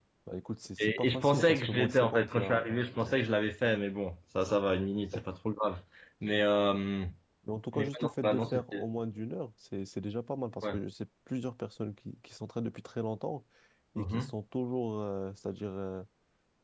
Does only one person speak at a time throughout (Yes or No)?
No